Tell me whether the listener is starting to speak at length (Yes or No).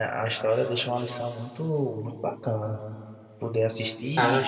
No